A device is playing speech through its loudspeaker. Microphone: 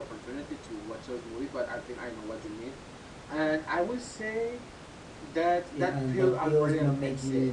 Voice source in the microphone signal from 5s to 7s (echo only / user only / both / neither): both